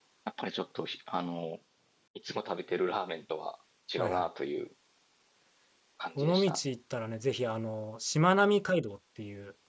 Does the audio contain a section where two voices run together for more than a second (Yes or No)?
No